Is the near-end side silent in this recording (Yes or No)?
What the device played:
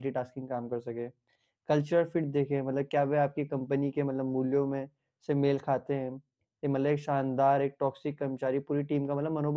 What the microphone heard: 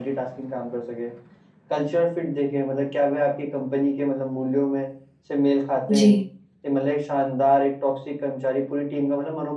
No